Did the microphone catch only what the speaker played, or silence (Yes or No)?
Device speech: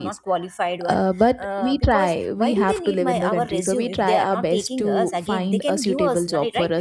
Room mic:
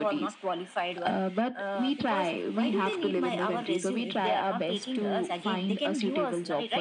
Yes